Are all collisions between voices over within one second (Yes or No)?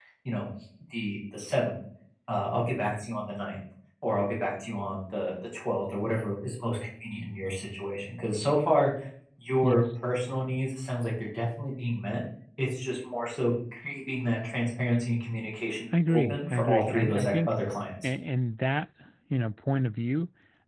No